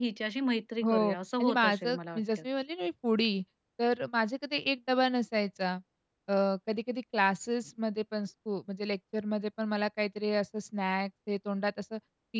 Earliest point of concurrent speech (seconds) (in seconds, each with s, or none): 0.8 s